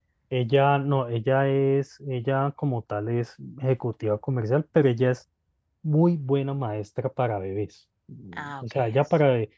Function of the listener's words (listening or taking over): listening